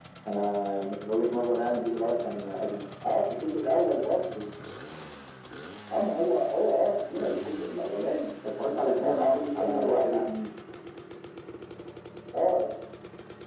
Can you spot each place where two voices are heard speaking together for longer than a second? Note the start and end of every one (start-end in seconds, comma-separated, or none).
8.7-10.2